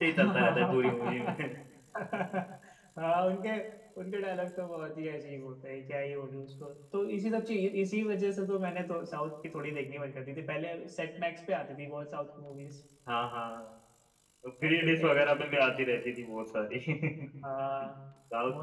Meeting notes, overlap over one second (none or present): present